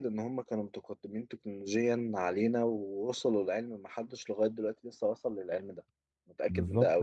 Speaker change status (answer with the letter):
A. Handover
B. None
A